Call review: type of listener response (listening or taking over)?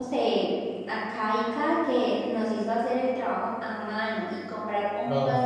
listening